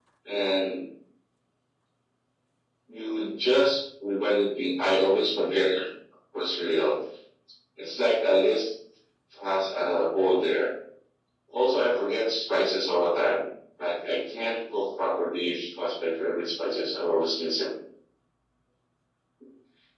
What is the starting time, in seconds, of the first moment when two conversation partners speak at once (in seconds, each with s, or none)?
none